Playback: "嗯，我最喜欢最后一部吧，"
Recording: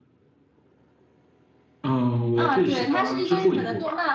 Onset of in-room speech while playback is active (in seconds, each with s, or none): 2.4 s